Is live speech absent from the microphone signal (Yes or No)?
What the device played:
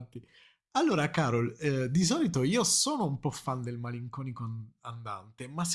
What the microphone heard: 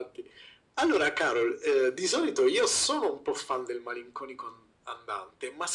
Yes